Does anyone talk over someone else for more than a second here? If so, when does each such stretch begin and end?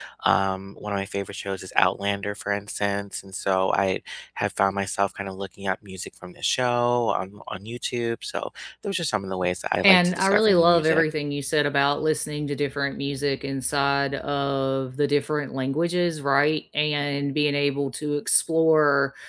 9.8-11.0

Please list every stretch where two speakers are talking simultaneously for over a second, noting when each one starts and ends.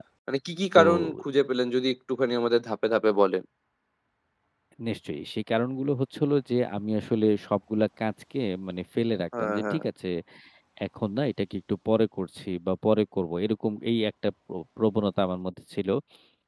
none

